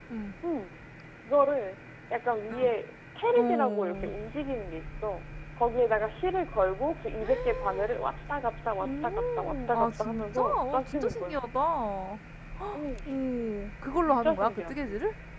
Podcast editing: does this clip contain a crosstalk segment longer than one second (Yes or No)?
Yes